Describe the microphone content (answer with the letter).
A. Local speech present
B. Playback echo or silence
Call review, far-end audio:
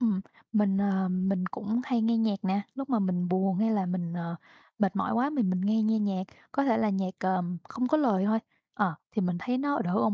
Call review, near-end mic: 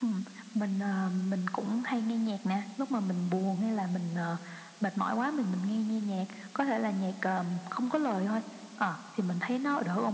B